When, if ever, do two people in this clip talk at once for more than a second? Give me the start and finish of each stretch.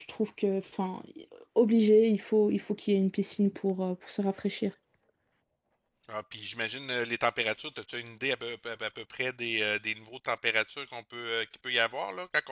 none

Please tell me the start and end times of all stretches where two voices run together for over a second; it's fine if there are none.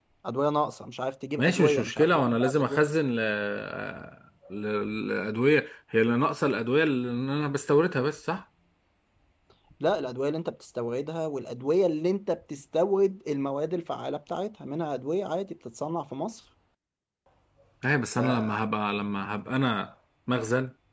1.4-2.8

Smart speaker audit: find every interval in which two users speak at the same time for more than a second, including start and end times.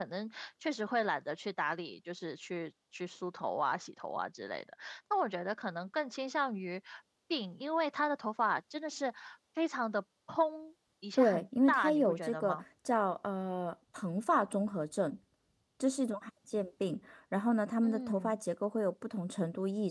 11.2-12.6

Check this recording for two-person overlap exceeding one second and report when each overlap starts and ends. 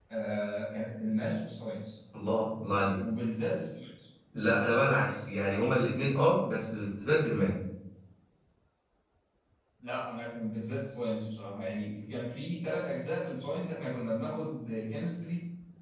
none

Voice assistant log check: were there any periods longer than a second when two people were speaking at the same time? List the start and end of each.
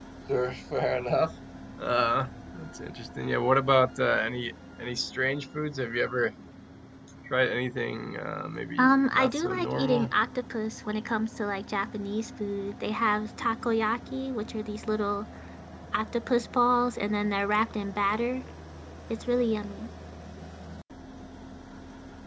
8.8-10.1

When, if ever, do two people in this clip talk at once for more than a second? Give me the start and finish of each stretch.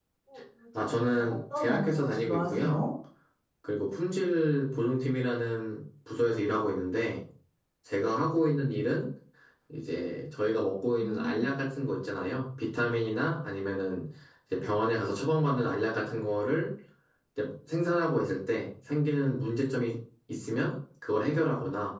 1.0-2.8

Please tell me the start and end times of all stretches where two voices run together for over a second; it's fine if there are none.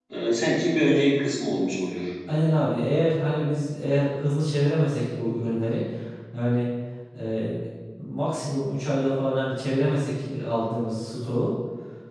none

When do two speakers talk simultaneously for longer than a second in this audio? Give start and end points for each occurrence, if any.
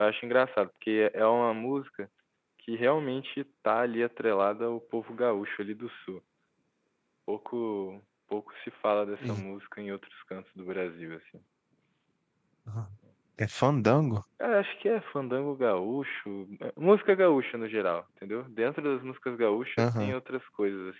none

